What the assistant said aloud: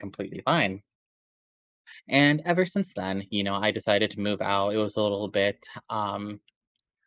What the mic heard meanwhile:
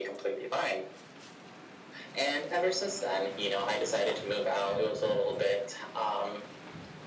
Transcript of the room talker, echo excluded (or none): none